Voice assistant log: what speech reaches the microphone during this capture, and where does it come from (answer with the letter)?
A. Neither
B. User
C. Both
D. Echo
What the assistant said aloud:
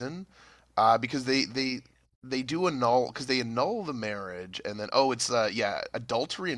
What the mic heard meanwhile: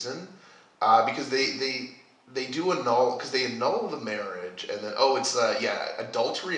D